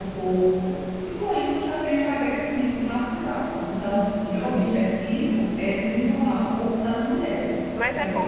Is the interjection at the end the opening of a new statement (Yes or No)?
Yes